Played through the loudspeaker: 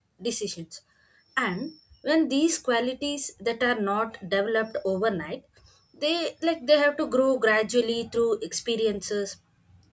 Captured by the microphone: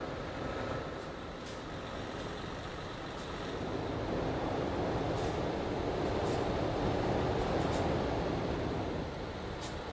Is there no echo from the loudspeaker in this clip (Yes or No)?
Yes